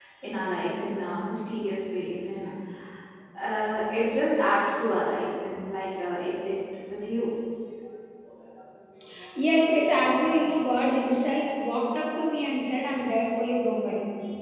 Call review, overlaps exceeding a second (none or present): none